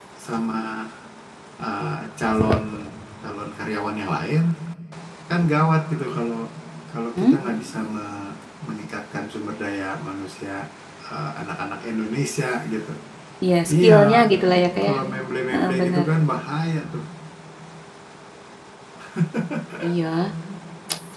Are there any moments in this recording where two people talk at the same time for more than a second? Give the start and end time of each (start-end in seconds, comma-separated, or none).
none